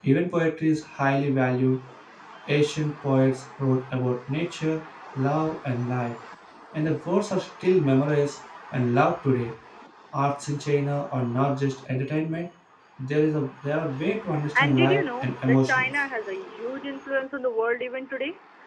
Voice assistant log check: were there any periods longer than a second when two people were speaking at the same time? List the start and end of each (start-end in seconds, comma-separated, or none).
14.6-16.0